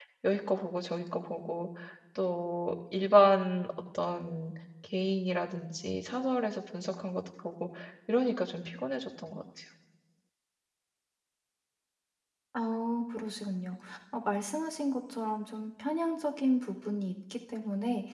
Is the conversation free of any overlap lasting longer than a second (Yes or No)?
Yes